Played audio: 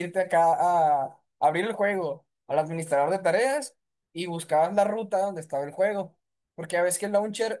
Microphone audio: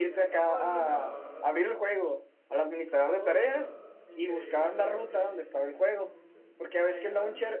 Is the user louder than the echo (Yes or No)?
No